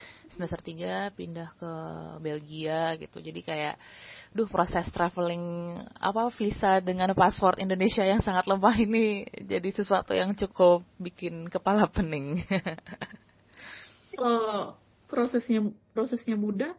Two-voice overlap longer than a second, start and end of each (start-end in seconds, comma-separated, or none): none